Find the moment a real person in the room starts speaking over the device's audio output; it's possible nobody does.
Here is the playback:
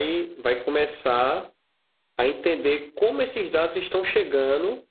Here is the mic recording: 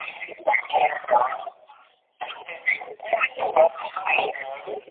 none

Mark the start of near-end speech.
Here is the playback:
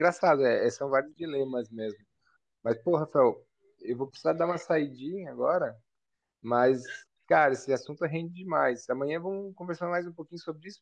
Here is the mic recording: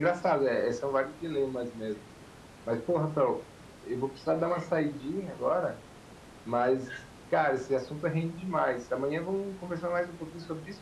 none

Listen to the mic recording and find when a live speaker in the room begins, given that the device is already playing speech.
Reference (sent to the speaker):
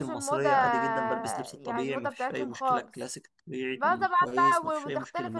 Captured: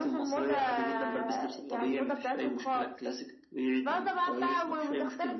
none

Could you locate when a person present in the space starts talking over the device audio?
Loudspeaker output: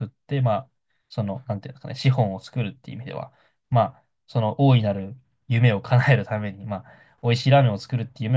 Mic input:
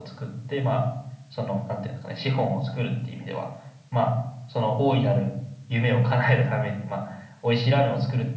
none

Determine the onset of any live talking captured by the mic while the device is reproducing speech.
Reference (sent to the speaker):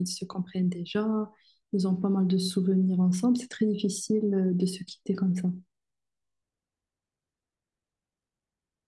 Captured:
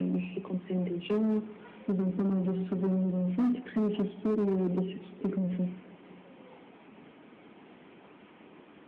none

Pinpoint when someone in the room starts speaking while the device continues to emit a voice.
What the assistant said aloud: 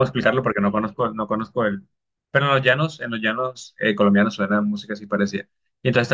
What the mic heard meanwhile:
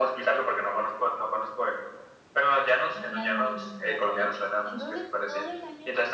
3 s

